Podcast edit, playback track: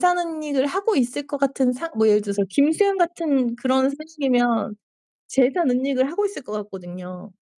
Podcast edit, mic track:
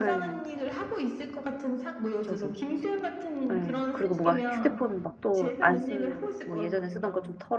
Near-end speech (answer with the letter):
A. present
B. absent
A